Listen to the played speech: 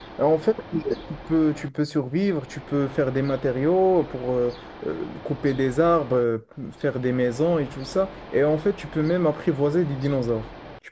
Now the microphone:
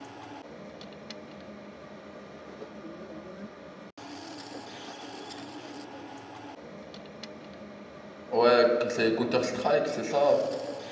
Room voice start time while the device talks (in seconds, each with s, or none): 8.3 s